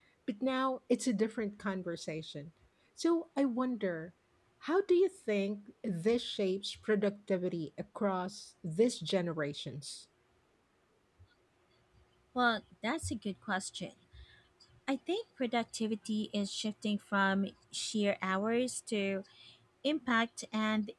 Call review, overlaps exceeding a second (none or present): none